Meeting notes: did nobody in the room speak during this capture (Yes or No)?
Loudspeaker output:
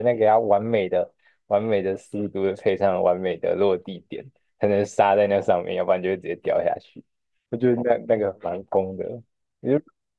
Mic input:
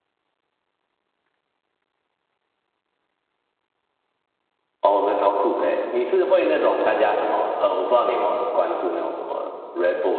No